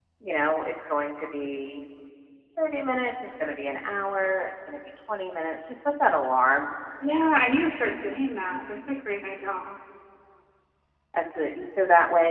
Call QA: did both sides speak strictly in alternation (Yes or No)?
Yes